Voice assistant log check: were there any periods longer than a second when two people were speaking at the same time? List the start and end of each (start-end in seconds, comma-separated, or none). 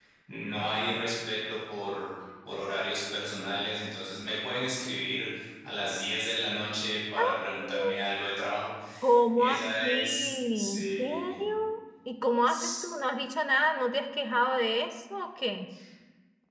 9.4-11.4